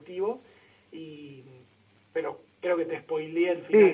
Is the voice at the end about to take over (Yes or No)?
Yes